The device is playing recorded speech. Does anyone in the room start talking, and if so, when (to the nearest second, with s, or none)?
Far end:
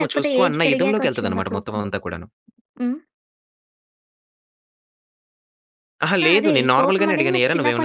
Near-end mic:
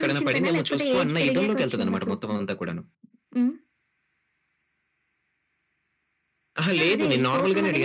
none